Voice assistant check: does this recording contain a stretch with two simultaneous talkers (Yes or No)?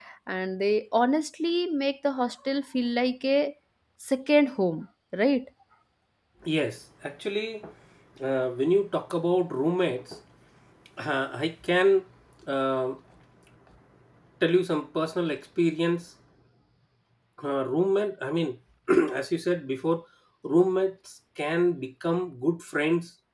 No